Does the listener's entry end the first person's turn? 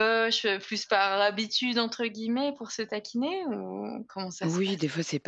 Yes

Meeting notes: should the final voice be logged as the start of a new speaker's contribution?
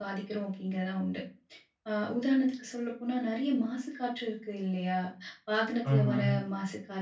No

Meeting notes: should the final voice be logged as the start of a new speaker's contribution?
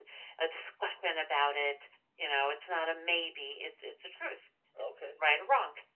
No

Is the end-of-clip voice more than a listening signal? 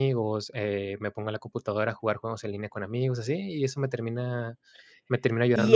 Yes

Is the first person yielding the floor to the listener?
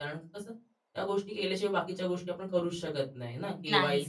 No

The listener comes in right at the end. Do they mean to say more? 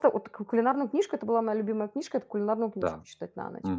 Yes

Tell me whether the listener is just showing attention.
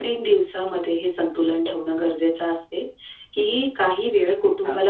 Yes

